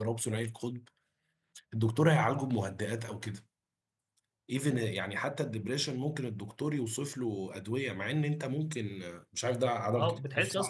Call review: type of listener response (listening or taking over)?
taking over